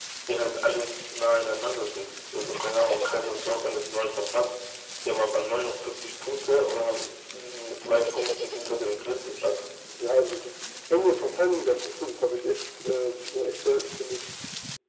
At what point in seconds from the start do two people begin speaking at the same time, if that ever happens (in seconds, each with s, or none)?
none